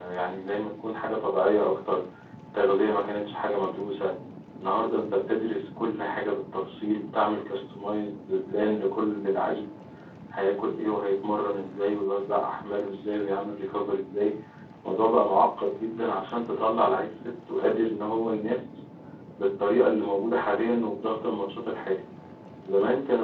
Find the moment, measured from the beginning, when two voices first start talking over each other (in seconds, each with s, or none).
none